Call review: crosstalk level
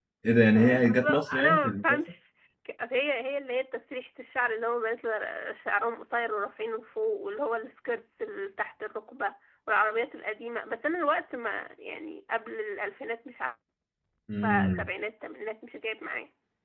present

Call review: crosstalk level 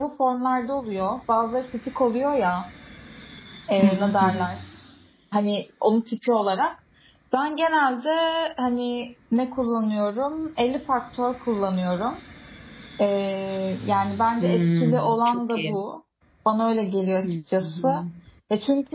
present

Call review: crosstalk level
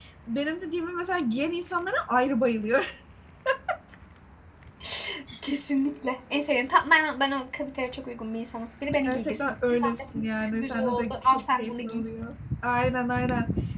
present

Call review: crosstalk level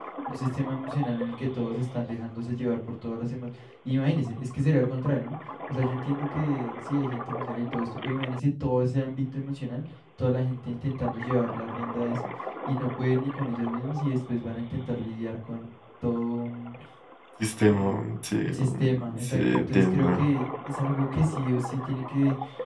present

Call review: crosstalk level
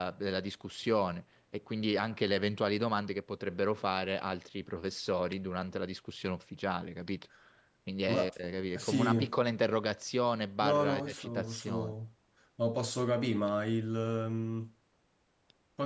present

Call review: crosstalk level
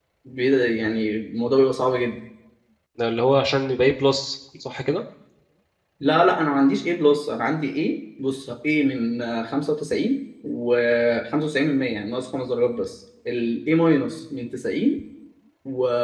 none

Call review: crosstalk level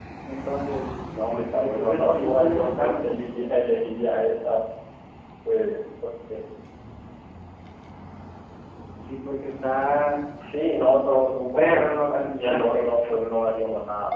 present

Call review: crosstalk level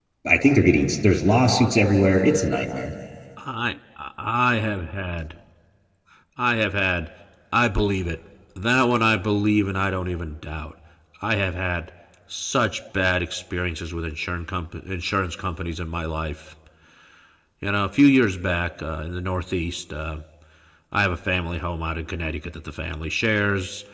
none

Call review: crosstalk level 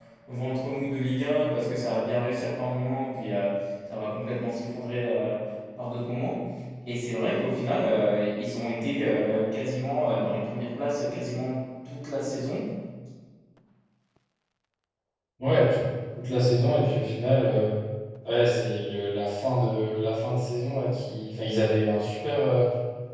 none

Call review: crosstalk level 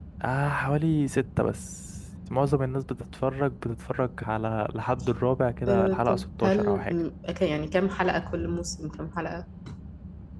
present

